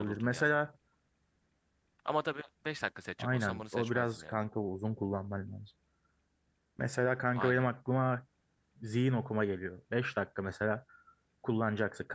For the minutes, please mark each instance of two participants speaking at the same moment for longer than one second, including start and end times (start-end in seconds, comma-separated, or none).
3.2-4.4